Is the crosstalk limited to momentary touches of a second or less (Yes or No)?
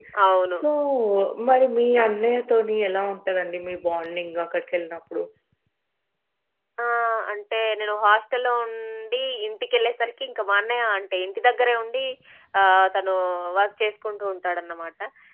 Yes